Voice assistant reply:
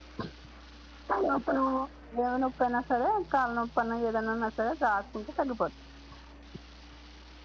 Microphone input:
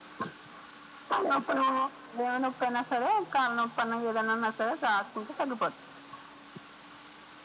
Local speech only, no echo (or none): none